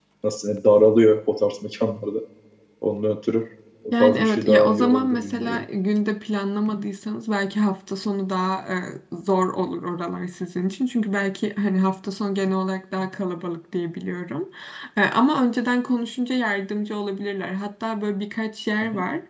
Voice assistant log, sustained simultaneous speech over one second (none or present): present